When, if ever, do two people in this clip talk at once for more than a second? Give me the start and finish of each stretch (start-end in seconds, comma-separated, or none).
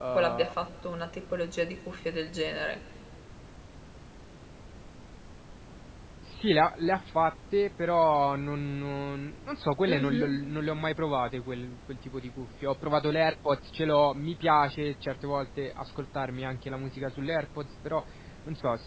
none